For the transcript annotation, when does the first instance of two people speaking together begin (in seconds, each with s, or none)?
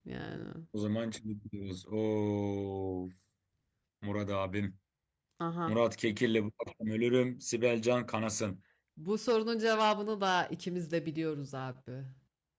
none